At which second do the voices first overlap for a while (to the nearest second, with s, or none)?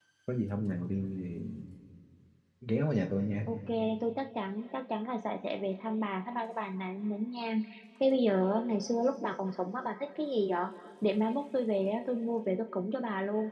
none